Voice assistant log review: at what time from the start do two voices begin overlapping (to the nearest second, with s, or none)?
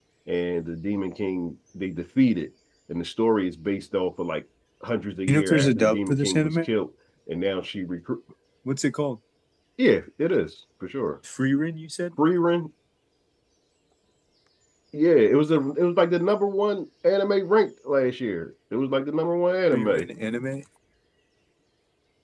5 s